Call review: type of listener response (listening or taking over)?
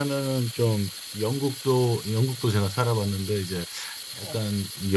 listening